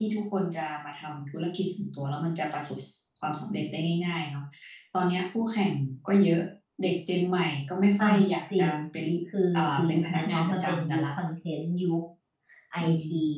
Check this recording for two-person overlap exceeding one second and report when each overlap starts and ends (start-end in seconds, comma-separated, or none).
9.6-11.0